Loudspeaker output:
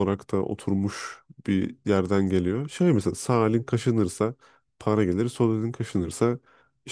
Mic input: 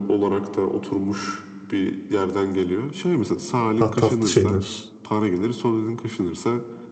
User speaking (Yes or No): Yes